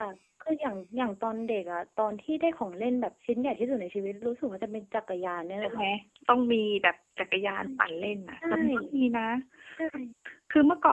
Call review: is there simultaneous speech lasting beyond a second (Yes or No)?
No